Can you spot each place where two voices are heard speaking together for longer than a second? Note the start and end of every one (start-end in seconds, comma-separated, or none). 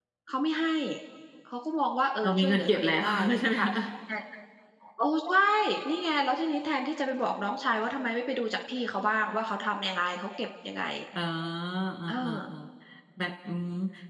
2.2-3.7